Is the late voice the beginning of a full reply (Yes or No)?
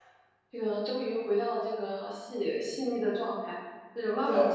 No